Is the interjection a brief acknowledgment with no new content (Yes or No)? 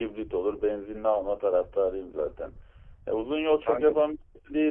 Yes